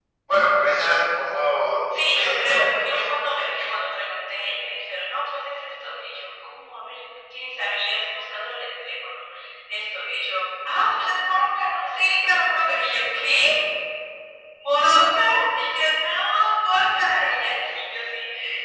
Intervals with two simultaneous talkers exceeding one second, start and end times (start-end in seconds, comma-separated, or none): 2.0-3.7